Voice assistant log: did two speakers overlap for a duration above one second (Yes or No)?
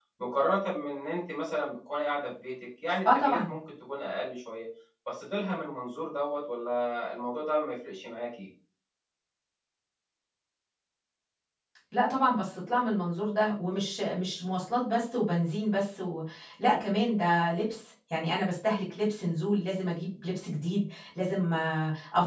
No